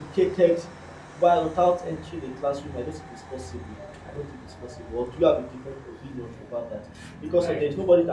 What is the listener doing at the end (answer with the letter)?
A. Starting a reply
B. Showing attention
B